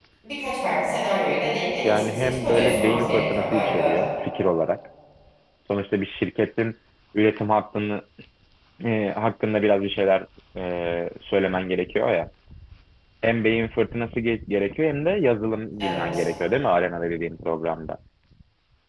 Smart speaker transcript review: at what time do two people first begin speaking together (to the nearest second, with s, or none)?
2 s